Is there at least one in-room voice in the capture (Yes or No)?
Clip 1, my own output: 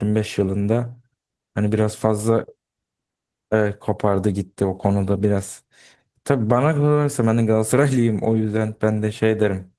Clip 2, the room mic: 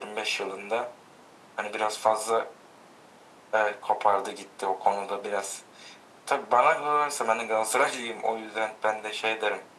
No